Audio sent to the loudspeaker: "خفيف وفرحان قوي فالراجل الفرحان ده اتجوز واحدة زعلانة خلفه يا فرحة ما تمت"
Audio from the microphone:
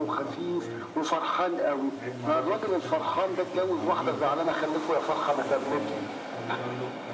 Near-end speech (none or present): present